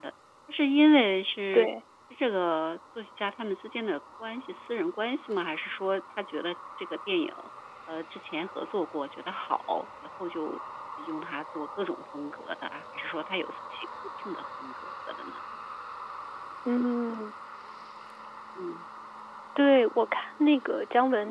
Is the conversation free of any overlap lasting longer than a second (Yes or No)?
Yes